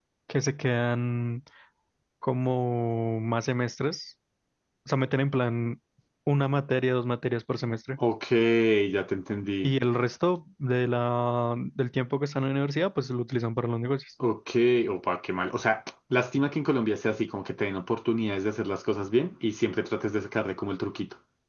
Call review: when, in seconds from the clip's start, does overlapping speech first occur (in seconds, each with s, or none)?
none